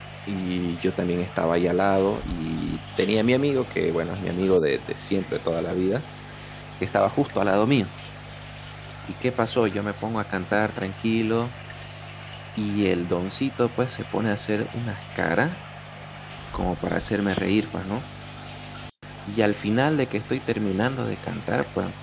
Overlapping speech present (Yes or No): No